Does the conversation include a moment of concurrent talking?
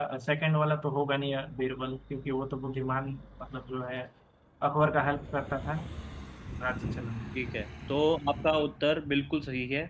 No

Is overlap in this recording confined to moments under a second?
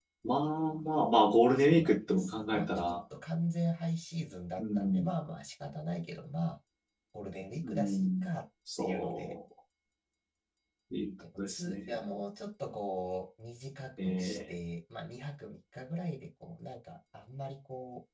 No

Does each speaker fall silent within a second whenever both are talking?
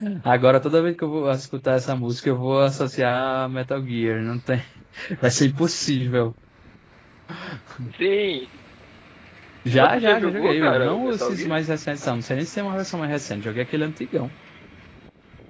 No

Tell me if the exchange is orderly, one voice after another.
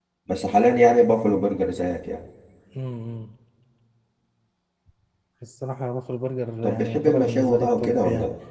No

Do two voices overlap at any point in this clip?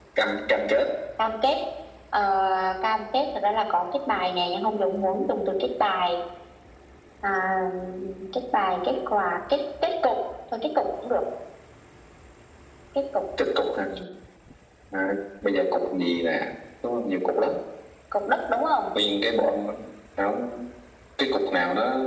No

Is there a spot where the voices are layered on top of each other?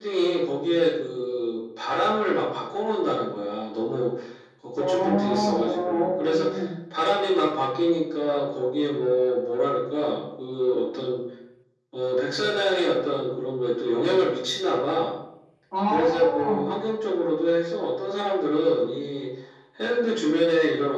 Yes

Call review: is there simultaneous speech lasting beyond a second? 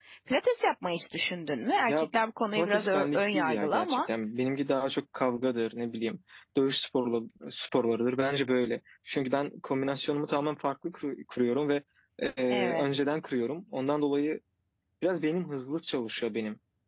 Yes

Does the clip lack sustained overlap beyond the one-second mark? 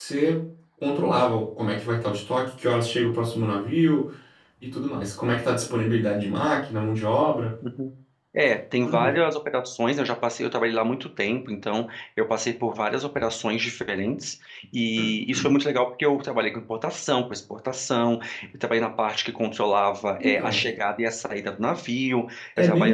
Yes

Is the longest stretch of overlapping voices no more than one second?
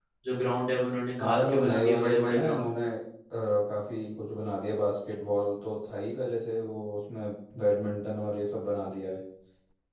No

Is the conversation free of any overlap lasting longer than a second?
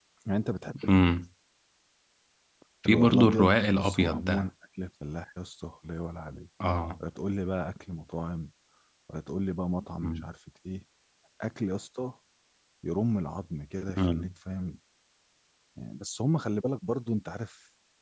No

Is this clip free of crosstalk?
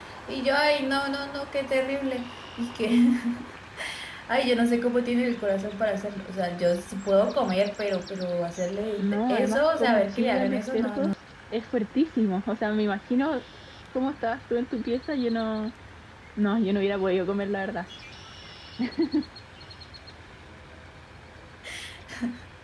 No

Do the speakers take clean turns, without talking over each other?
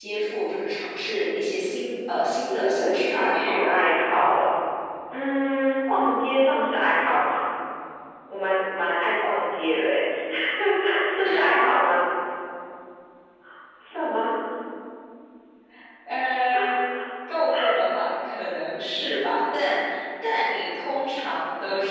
No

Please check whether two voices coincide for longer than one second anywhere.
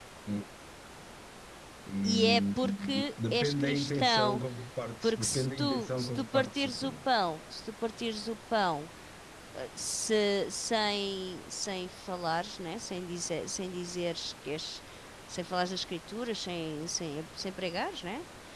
Yes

